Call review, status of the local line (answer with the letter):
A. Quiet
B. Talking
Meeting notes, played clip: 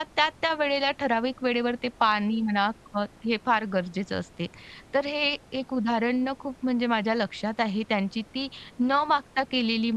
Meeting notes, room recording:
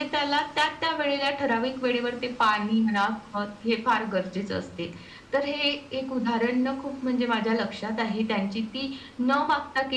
A